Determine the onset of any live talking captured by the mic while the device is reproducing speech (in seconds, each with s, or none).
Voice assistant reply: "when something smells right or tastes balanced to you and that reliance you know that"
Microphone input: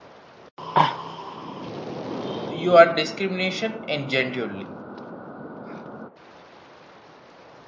2.5 s